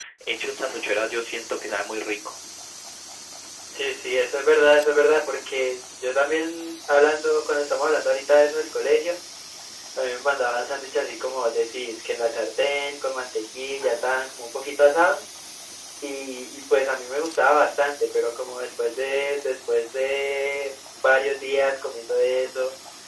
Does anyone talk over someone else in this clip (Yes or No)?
No